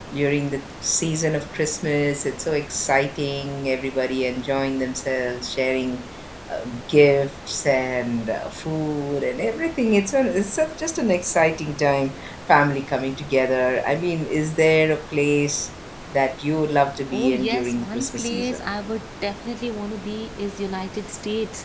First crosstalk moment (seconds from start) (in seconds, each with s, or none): 17.1 s